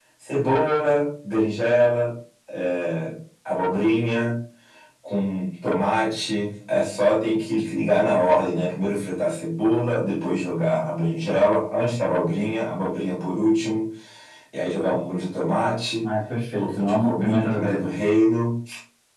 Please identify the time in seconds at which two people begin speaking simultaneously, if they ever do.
16.6 s

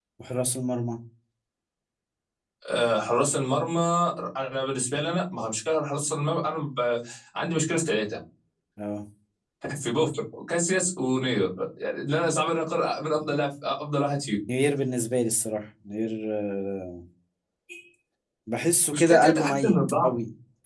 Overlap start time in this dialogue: 18.9 s

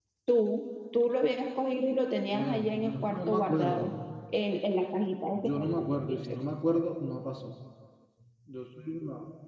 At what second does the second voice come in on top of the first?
2.3 s

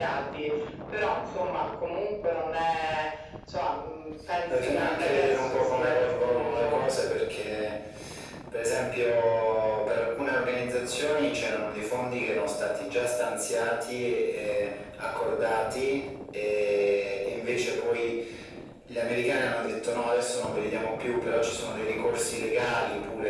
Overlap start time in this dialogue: 4.5 s

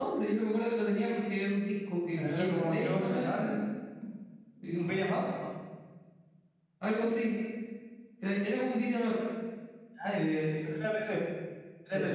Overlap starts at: 2.2 s

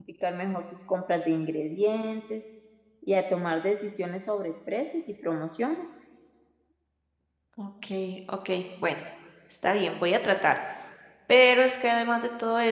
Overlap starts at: none

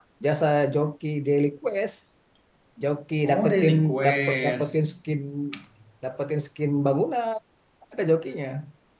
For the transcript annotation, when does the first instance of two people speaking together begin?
3.2 s

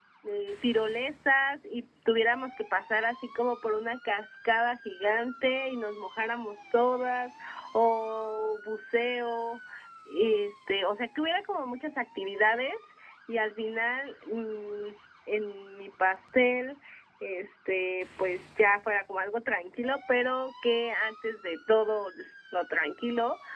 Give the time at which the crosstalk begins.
none

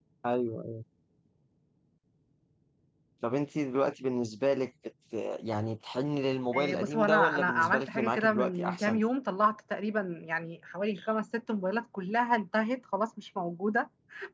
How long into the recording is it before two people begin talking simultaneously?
6.5 s

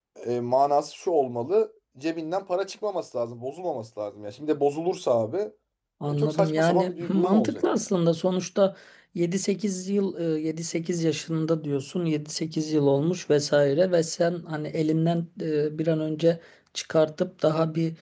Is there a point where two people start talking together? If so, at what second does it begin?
6.1 s

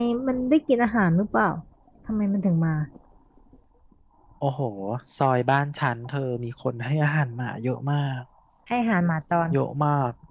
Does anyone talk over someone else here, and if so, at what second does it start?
none

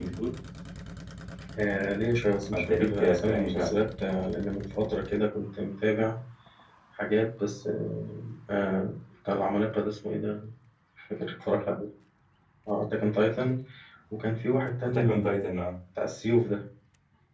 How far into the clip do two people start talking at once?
2.5 s

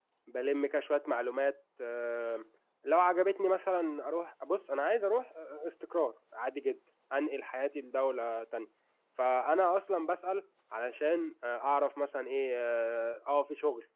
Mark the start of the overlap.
none

